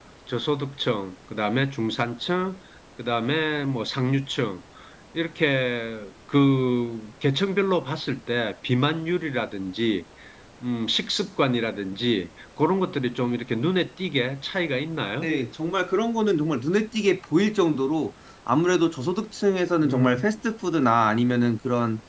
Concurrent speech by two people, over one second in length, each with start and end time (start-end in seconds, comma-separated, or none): none